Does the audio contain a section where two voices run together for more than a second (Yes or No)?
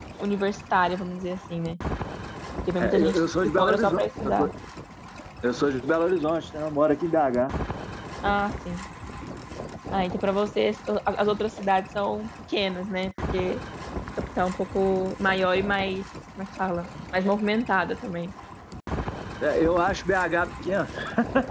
Yes